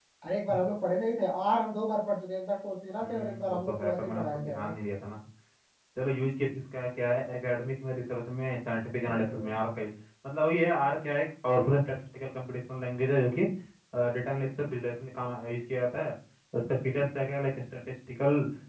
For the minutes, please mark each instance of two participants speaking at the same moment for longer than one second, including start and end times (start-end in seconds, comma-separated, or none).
3.0-4.7